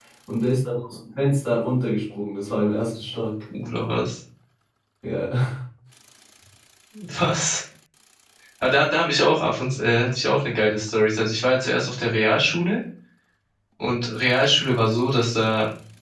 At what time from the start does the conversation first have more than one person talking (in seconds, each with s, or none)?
none